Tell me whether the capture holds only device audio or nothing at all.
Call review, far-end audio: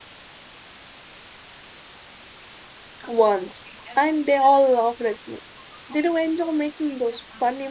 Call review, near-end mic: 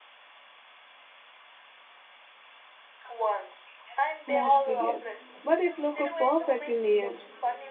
No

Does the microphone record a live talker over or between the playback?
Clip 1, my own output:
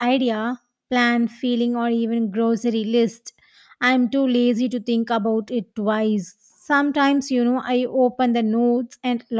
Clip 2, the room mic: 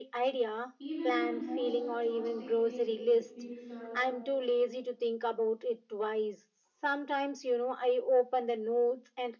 Yes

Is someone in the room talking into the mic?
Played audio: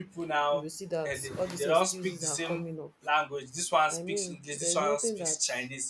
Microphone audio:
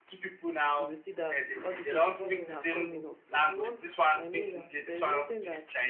Yes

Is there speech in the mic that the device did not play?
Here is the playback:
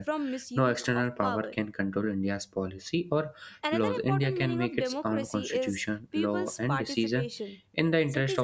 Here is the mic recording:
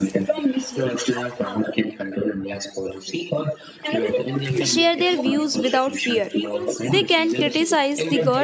Yes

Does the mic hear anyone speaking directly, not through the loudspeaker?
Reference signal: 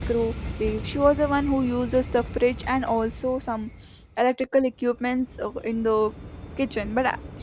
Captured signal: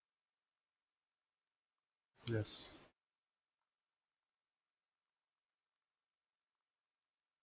Yes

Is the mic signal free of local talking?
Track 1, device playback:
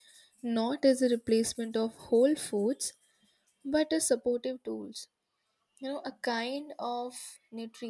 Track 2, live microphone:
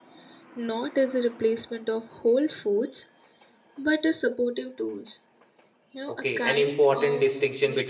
No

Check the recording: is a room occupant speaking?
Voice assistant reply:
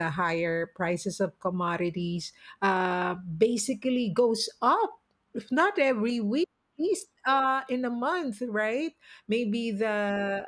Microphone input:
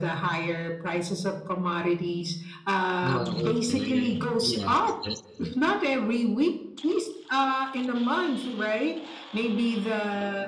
Yes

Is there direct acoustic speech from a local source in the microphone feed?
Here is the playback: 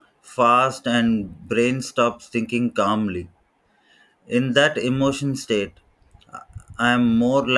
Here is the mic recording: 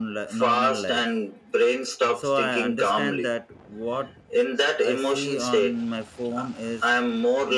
Yes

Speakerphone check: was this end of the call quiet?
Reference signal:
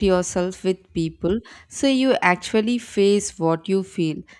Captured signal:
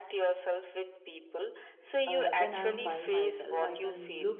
No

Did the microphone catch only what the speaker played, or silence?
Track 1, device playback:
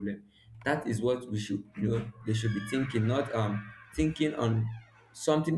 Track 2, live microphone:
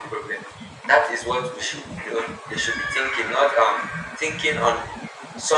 Yes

